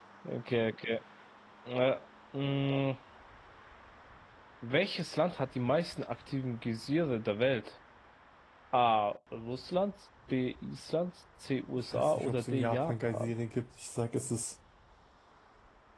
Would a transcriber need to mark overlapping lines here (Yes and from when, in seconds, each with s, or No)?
Yes, from 11.9 s